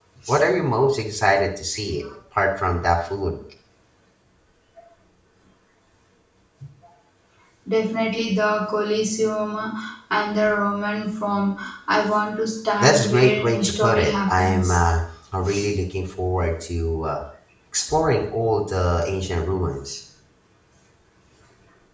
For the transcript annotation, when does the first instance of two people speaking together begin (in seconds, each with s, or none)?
12.8 s